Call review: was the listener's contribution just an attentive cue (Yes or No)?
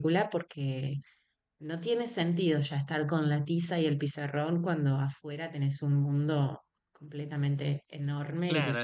No